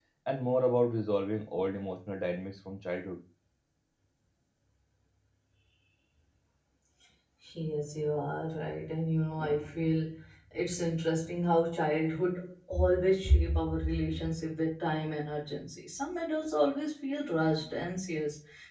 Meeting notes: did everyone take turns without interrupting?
Yes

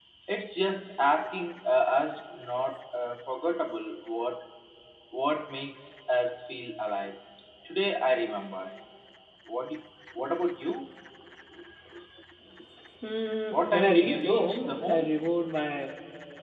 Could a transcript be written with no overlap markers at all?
No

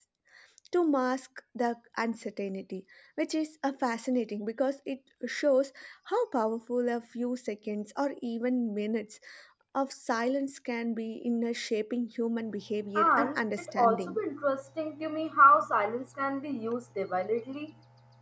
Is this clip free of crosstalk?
No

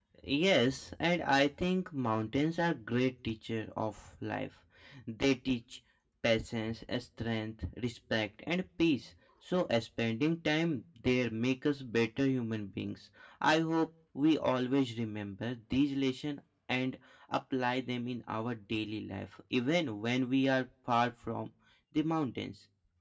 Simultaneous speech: No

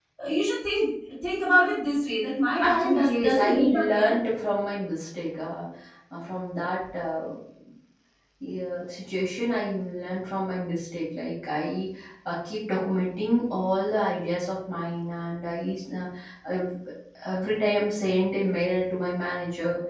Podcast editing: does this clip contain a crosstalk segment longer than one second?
Yes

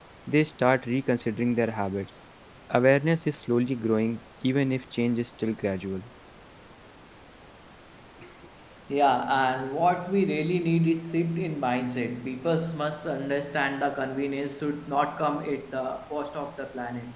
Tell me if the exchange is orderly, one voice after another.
Yes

